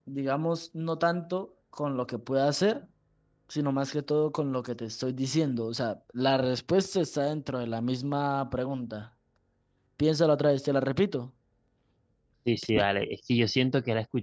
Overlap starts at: none

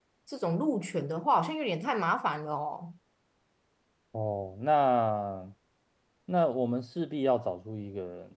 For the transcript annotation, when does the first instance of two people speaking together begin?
none

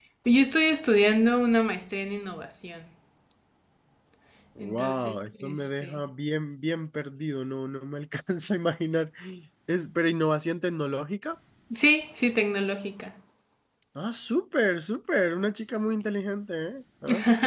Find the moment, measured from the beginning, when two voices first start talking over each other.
4.6 s

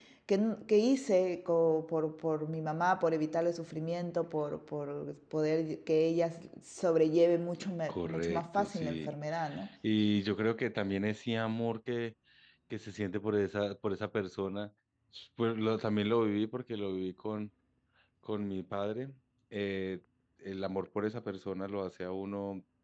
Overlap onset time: 7.9 s

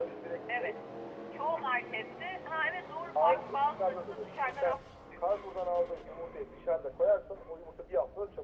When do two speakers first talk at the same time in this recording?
3.1 s

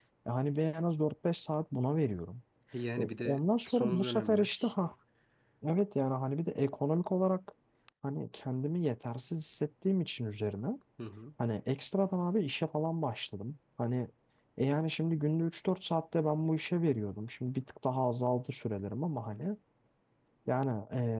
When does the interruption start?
3.0 s

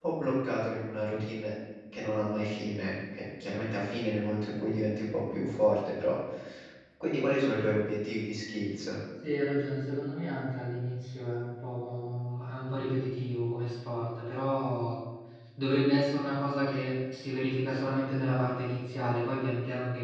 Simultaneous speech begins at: none

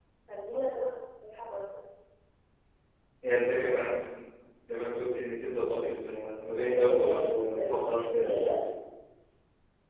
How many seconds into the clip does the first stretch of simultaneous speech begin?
6.6 s

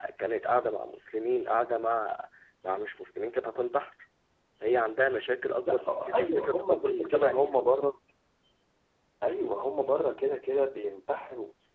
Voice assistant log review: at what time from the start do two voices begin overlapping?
5.6 s

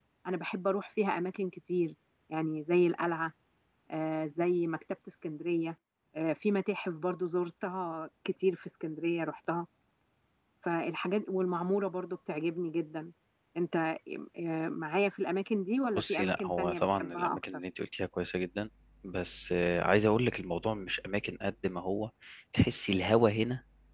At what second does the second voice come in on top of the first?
15.9 s

